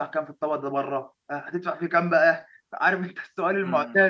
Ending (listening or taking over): taking over